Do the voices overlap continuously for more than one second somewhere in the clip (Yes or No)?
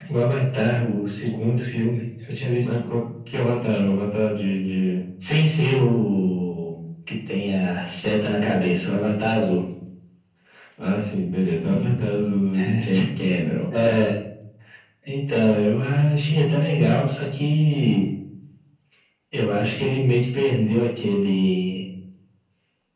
No